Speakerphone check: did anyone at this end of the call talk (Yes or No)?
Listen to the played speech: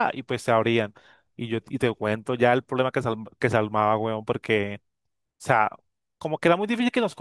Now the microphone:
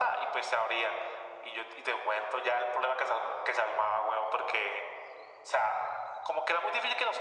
No